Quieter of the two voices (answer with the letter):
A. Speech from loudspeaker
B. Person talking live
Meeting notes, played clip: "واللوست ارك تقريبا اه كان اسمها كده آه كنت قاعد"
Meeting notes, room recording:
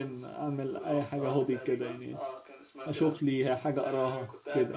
A